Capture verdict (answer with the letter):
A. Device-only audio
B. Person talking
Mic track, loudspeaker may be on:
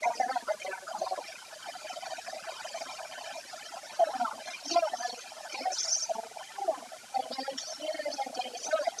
A